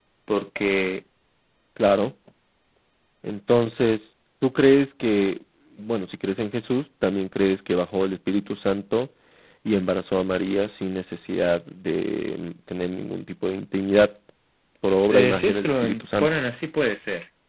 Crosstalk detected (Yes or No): Yes